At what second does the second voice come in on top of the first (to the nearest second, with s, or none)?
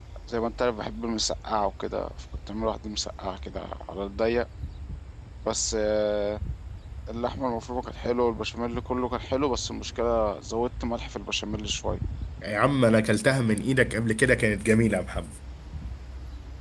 none